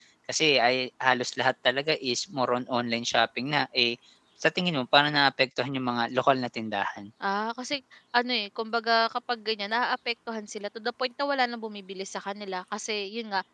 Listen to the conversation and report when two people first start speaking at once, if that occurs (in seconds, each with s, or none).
none